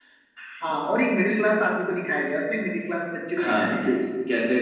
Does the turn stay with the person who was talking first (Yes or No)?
No